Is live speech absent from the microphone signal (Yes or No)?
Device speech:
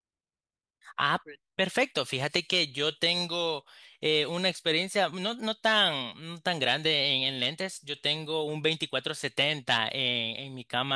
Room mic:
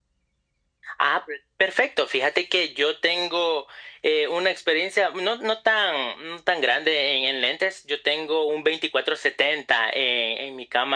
Yes